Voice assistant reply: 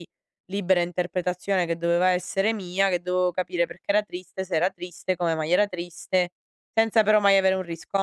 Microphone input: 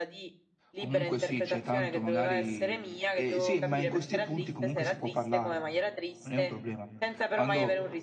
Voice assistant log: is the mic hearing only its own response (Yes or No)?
No